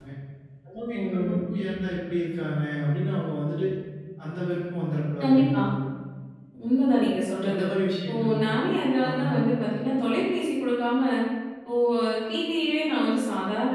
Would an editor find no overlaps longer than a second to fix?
Yes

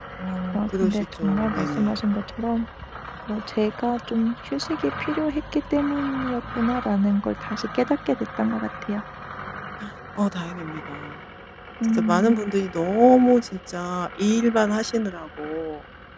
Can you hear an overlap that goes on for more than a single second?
Yes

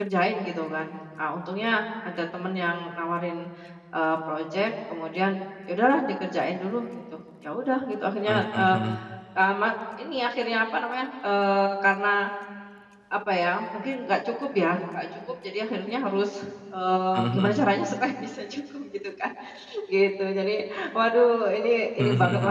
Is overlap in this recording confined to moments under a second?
Yes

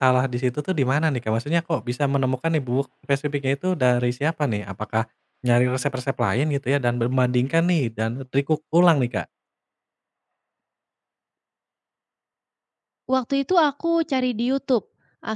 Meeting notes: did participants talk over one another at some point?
No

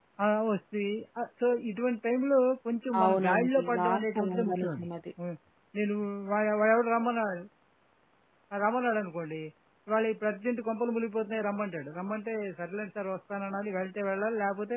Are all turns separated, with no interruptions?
No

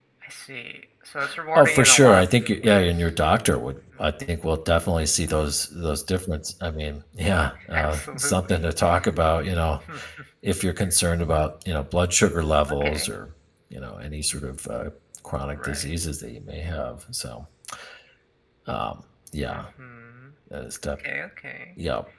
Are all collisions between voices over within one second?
No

